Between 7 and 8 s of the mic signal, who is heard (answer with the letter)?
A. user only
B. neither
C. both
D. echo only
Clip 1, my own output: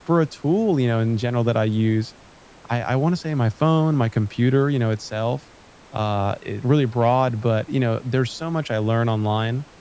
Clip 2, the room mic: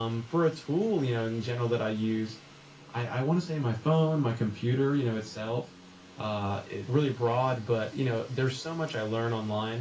D